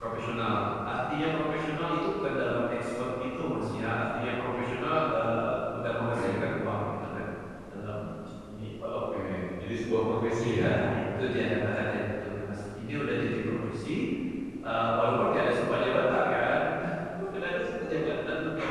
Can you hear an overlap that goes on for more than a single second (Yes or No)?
No